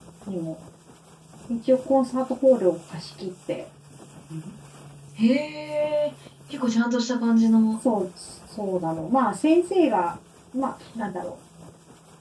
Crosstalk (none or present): none